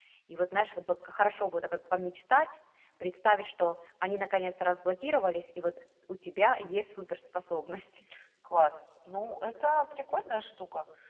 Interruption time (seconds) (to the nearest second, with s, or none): none